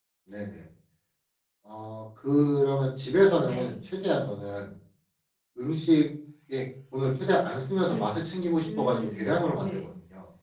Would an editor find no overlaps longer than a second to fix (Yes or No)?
No